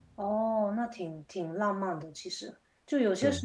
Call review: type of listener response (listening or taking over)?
listening